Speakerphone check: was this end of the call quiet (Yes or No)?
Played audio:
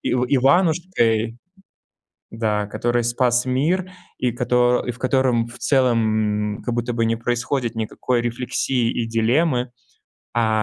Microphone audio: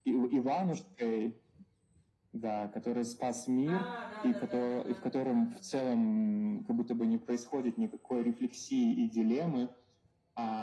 No